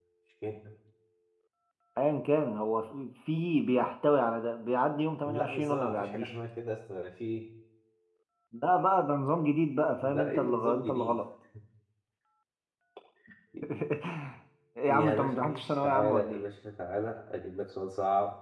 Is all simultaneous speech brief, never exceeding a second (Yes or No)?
No